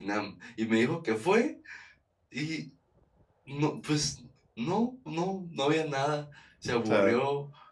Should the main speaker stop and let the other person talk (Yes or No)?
No